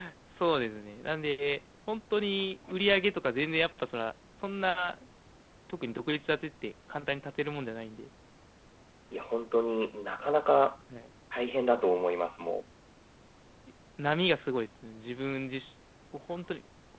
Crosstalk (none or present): none